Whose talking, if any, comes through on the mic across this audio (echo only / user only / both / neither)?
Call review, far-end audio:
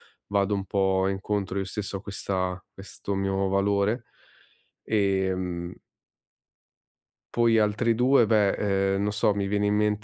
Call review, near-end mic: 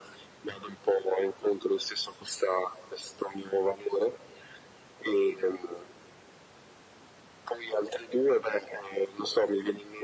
echo only